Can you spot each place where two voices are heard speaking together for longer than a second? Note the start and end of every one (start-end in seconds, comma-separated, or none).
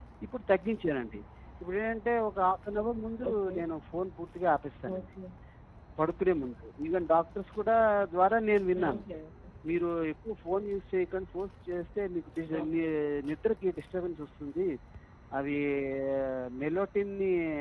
none